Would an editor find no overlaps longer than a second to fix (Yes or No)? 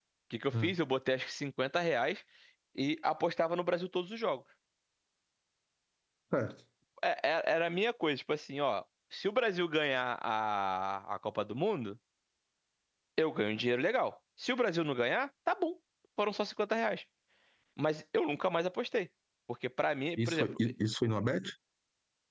Yes